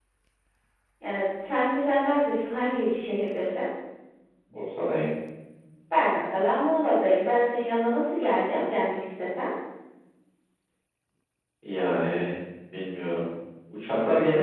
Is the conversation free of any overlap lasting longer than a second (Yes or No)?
Yes